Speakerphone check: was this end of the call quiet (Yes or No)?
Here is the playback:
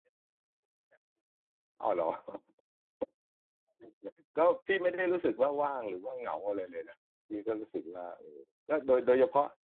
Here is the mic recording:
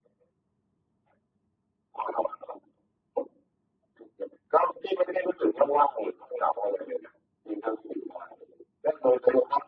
Yes